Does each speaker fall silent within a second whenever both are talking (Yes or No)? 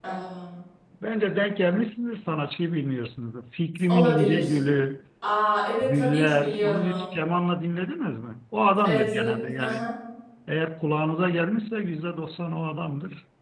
No